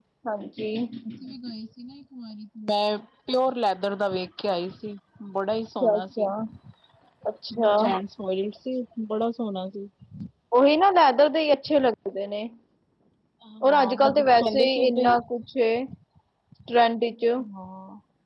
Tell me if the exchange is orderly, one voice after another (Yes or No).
No